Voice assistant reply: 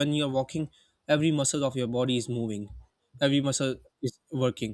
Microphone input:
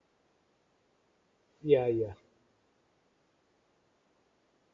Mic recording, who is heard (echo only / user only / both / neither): user only